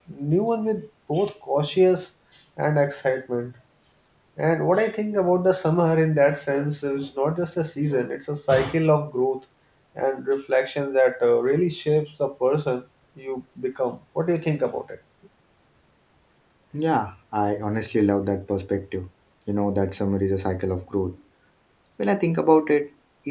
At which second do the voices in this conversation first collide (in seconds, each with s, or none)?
none